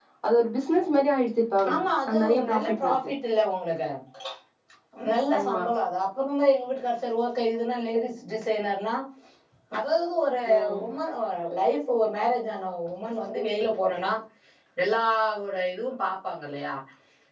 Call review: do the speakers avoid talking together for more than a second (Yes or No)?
No